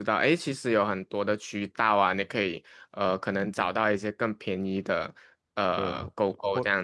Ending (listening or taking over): taking over